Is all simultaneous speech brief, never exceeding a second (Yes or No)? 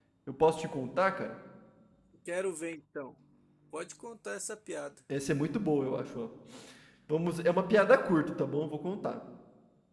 Yes